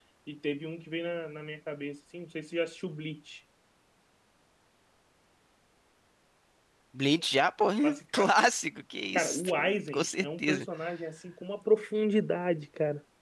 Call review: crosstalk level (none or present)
present